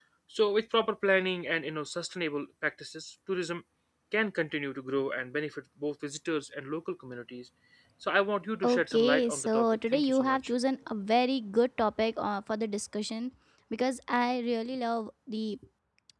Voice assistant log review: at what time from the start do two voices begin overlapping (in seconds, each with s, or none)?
8.6 s